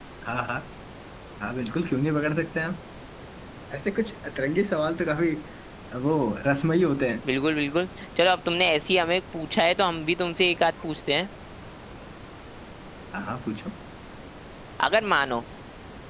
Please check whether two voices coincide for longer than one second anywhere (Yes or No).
No